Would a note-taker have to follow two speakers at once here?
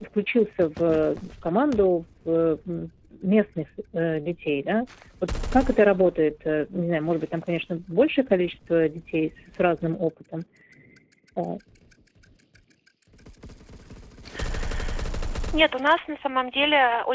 No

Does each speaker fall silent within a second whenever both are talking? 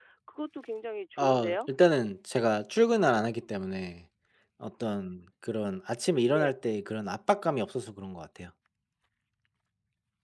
Yes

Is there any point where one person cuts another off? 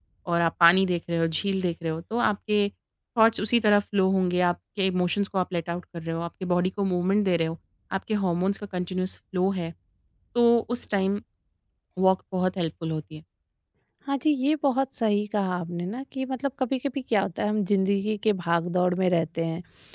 No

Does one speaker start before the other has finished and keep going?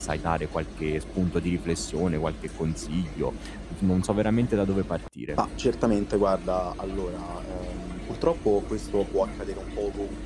No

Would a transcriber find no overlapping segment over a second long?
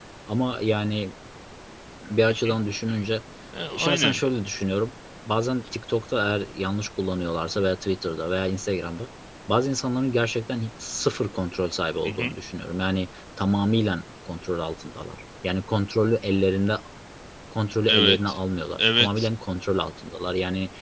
Yes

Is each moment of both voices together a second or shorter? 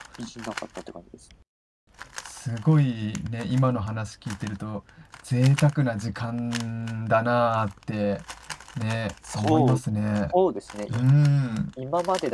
Yes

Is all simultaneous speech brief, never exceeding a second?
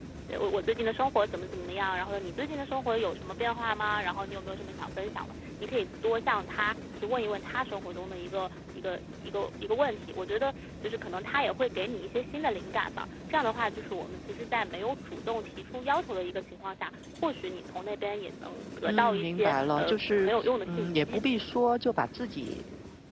No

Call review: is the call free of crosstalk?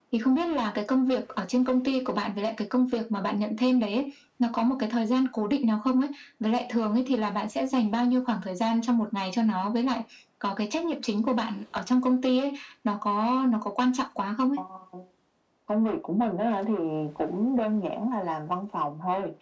Yes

